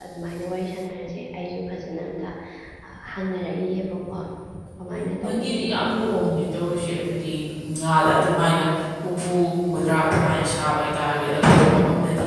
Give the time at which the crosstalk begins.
4.8 s

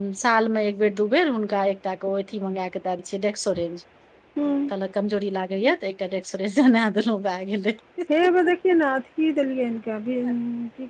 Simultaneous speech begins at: none

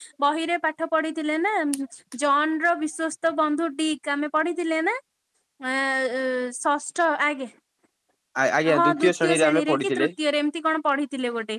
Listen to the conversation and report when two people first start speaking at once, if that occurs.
8.8 s

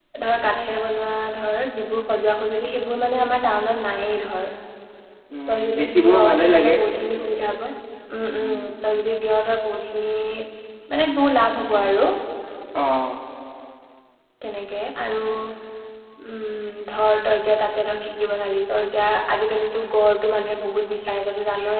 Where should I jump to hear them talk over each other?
5.5 s

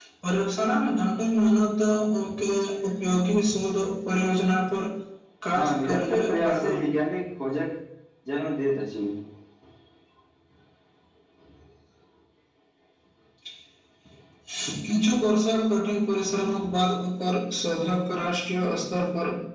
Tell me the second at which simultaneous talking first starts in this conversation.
5.6 s

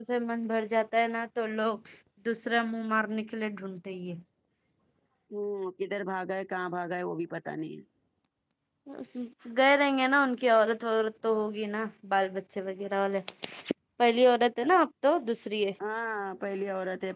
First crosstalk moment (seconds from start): none

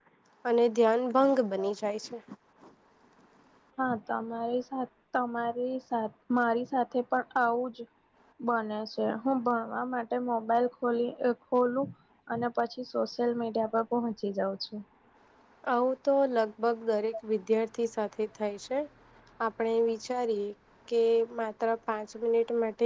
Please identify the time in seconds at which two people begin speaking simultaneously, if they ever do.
none

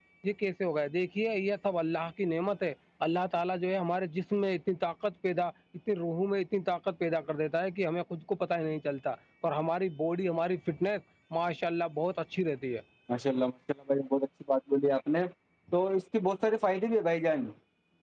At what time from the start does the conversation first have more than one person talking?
none

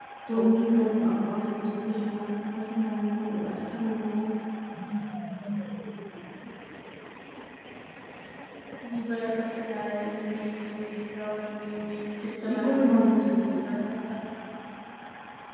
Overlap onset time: 12.4 s

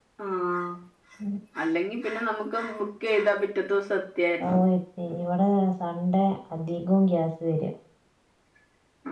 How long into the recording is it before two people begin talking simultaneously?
none

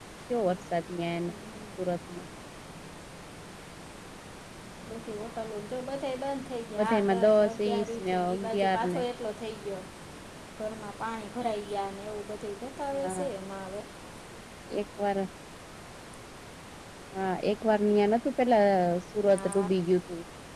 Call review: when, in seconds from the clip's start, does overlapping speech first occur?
6.8 s

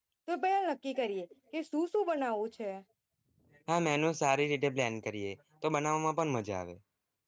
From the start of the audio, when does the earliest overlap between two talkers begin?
none

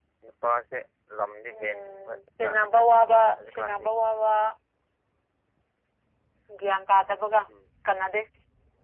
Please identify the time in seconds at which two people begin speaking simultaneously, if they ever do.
1.5 s

